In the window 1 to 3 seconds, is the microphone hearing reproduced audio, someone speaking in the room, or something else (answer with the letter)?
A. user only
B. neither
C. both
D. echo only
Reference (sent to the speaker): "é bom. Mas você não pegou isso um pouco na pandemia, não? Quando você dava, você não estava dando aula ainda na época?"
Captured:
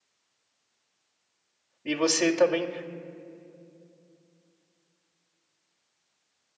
A